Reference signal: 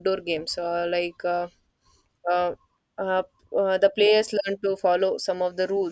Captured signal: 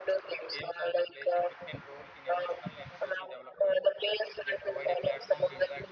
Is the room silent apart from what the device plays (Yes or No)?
No